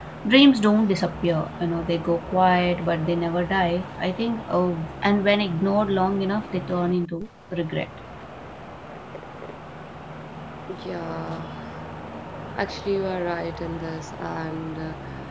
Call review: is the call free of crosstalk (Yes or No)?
Yes